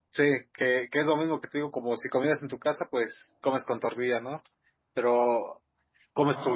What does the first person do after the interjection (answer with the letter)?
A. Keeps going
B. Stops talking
A